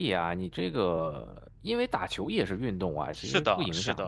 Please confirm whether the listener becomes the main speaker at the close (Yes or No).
Yes